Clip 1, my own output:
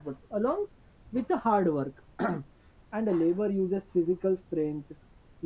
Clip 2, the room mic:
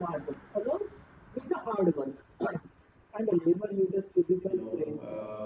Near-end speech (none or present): present